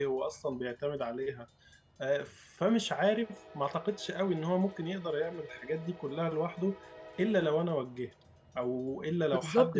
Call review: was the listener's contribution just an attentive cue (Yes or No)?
No